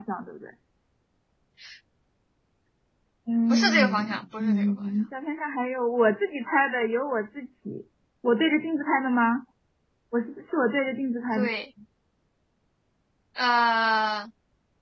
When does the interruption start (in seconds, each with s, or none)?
3.5 s